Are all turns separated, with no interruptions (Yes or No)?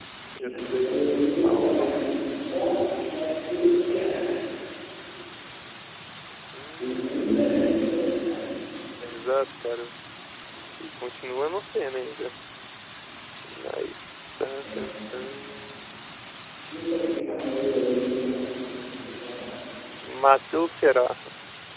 No